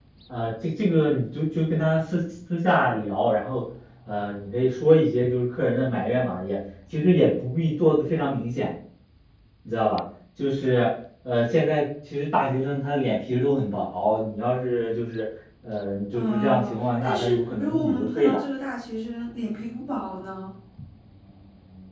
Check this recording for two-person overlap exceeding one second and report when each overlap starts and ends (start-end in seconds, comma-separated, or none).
16.1-18.4